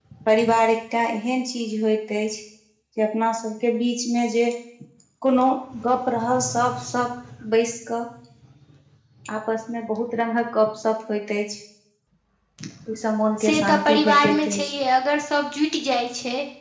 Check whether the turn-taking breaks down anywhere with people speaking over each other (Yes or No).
Yes